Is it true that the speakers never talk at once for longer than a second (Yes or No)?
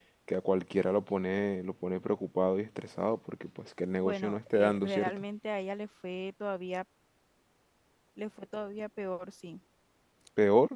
No